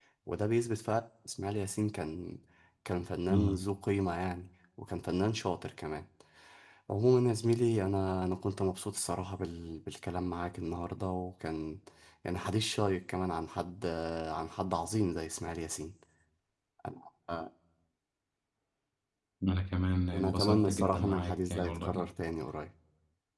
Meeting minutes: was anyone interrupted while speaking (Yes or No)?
Yes